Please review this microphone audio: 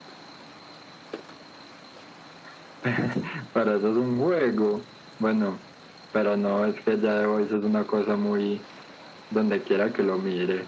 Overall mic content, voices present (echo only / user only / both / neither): echo only